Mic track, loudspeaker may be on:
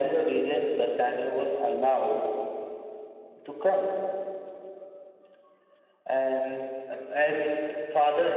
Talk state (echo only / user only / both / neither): echo only